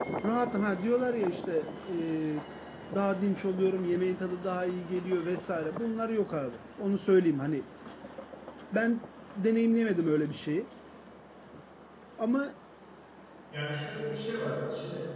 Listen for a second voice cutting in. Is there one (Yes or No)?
No